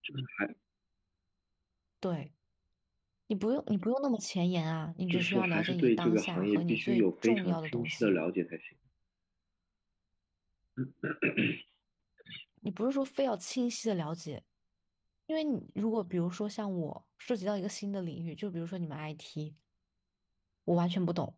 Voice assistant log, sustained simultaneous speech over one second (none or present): present